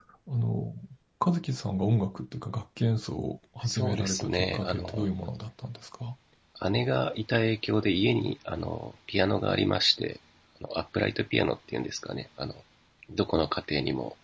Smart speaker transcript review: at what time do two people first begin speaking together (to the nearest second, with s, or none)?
4 s